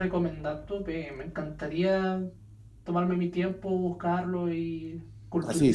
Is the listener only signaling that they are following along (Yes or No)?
No